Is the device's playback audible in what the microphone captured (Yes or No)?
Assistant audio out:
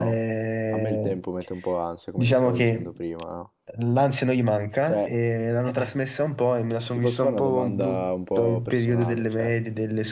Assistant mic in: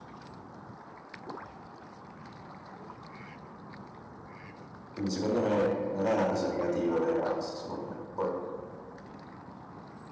No